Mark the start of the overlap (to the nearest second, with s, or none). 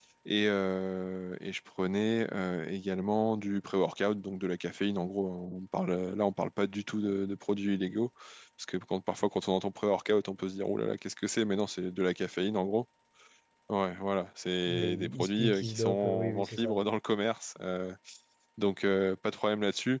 15 s